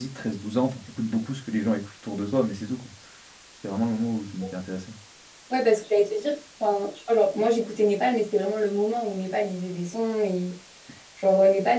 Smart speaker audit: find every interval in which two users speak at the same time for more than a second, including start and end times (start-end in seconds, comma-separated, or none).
none